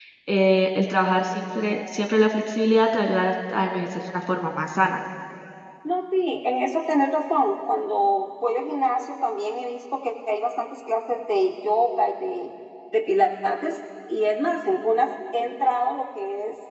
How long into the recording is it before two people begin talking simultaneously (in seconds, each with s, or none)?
none